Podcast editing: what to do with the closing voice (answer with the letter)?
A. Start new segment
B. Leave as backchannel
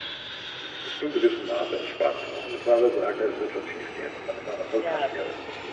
A